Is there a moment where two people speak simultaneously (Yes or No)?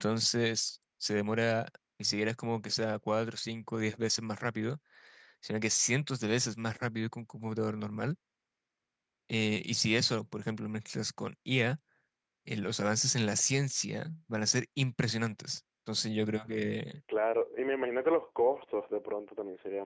No